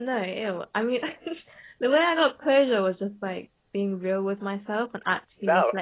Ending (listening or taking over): taking over